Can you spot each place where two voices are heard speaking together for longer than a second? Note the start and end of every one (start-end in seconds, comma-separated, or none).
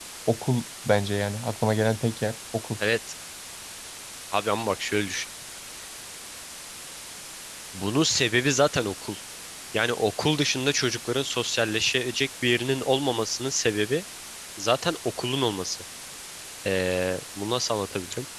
none